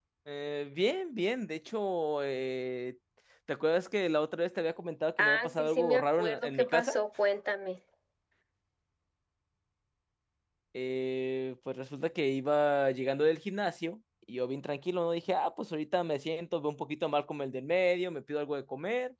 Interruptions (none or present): present